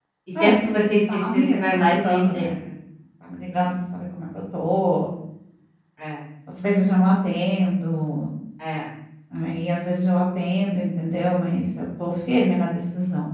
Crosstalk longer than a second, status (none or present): present